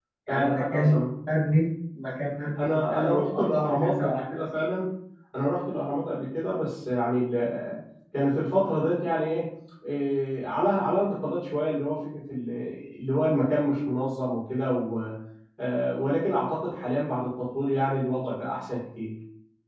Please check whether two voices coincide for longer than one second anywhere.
Yes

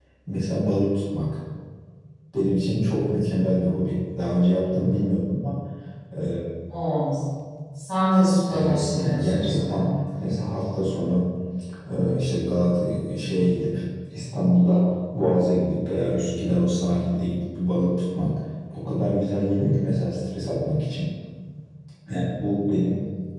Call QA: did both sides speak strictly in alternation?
No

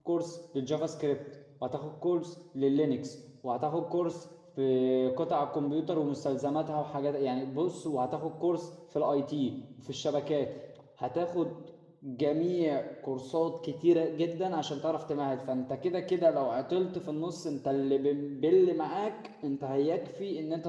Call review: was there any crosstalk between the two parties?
No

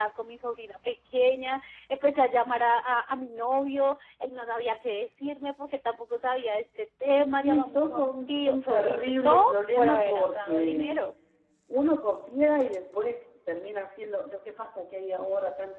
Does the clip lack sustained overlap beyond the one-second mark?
No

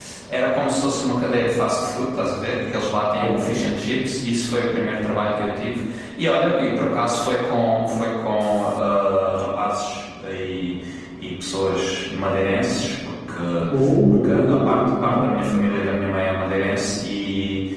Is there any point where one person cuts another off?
Yes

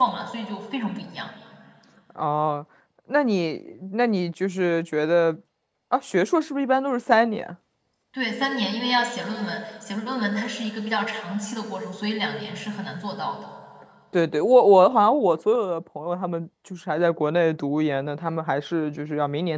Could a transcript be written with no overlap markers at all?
Yes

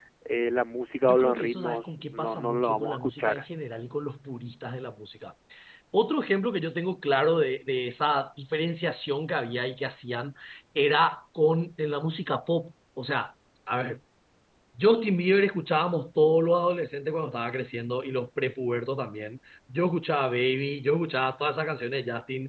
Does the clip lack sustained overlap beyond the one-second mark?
No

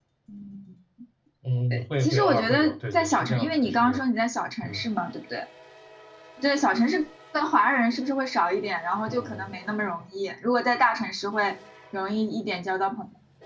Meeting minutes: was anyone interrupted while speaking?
Yes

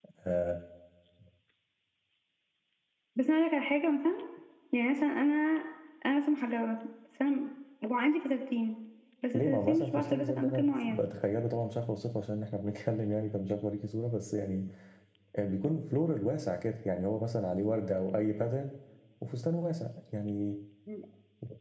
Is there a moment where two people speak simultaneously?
Yes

